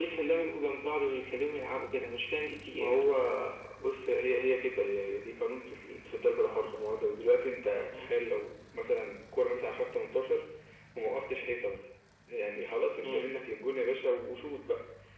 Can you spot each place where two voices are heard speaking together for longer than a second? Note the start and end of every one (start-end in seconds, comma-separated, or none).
none